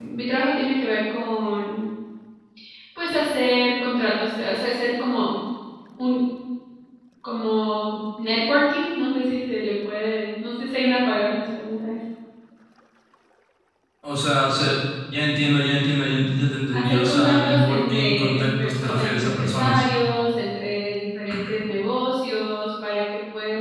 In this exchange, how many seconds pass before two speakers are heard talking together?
16.7 s

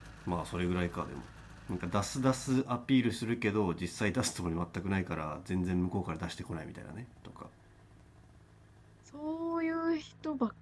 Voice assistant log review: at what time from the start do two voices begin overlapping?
none

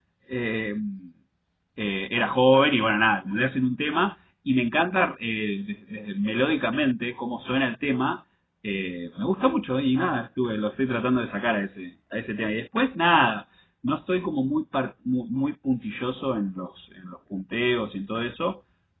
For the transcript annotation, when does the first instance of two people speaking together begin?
none

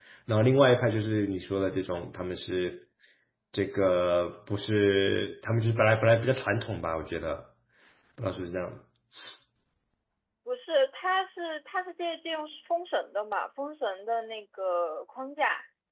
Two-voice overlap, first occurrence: none

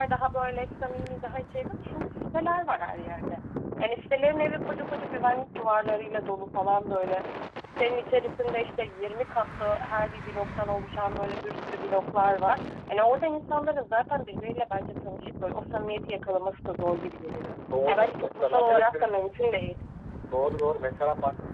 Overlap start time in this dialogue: 17.7 s

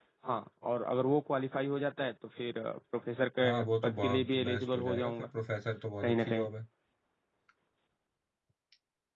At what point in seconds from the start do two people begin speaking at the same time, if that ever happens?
3.4 s

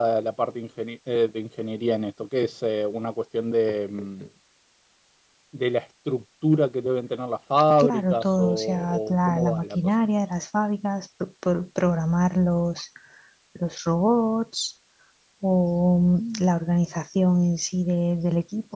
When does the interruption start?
7.8 s

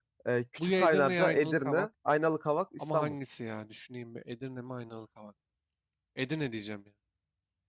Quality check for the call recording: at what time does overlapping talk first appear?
0.6 s

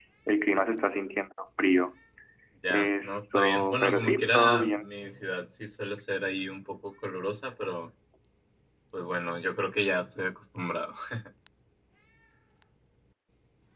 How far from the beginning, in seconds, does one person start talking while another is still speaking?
2.7 s

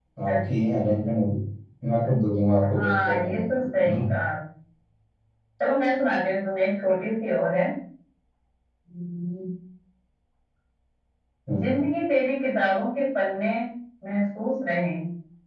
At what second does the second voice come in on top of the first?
2.7 s

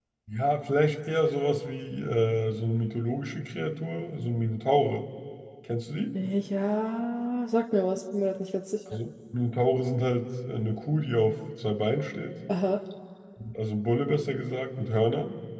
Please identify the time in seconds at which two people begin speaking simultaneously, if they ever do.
none

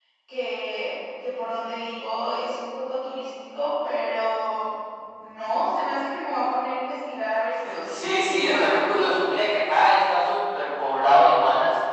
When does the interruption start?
7.9 s

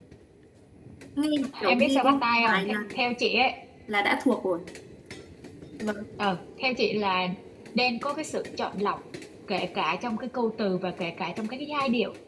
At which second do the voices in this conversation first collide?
1.7 s

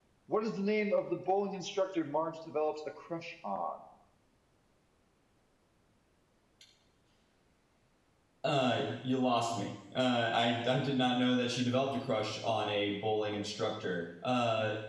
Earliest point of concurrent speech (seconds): none

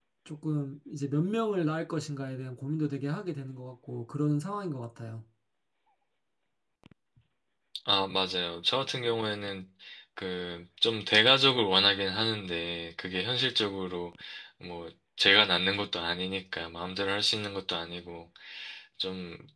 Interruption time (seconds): none

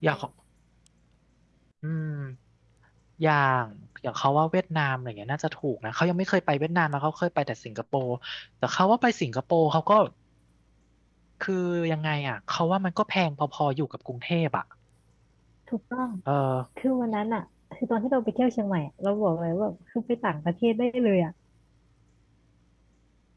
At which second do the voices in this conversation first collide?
none

